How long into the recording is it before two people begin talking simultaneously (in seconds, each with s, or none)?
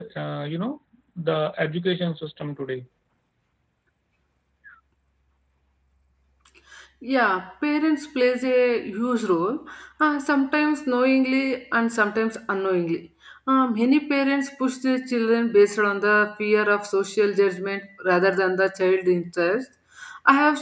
none